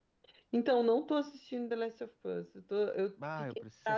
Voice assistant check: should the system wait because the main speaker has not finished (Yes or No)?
No